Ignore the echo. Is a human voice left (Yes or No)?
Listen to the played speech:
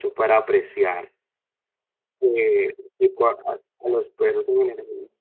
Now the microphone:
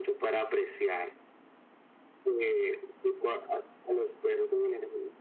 No